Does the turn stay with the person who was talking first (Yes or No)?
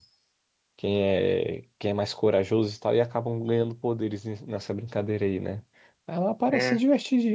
Yes